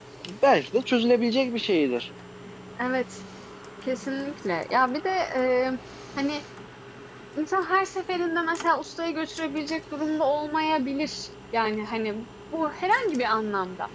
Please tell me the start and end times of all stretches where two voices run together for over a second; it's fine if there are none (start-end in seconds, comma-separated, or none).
none